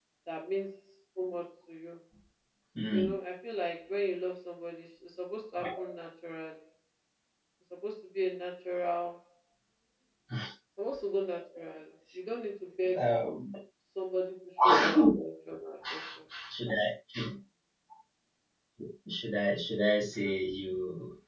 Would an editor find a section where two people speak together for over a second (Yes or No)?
No